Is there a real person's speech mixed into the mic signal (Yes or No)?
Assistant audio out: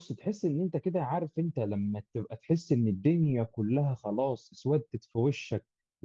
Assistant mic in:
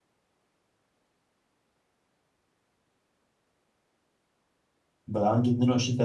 Yes